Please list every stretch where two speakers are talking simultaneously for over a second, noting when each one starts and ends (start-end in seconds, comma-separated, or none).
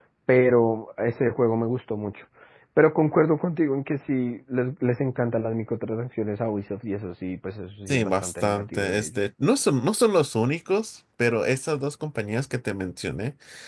7.9-9.2